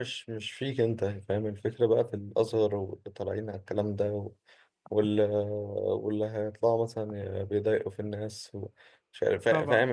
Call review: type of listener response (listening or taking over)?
listening